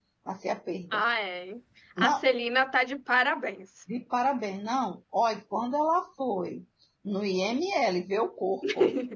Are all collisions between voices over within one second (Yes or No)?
Yes